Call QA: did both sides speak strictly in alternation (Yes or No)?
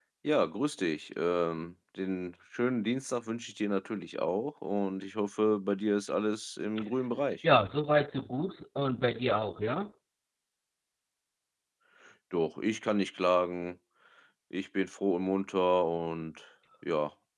Yes